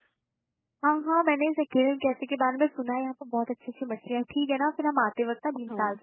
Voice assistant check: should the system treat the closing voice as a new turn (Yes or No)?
No